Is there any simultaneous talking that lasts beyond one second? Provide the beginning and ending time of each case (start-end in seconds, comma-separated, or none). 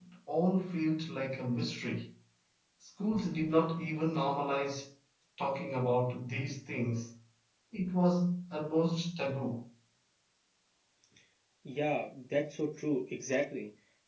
none